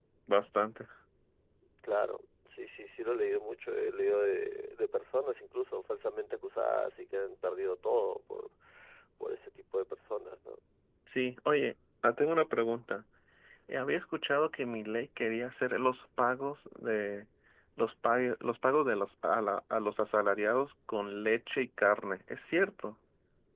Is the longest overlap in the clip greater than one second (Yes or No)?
No